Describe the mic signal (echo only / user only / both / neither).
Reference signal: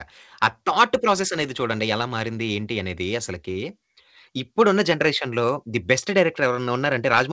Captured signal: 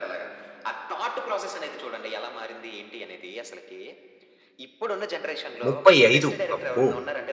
both